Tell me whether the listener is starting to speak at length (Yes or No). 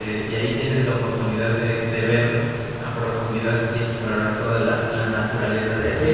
Yes